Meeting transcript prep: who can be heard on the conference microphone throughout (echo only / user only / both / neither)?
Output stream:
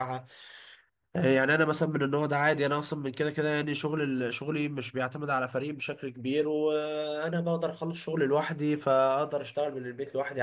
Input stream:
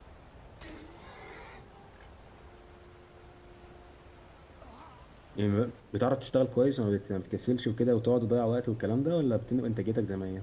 user only